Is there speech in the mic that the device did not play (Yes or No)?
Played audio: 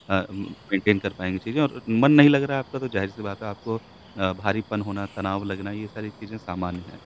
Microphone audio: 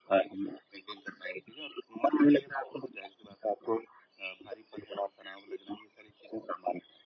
No